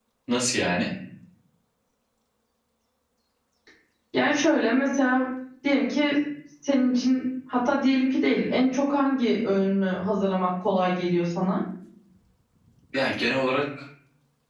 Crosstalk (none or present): none